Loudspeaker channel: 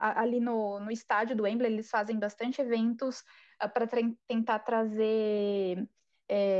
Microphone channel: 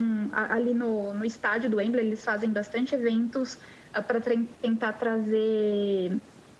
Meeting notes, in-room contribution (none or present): none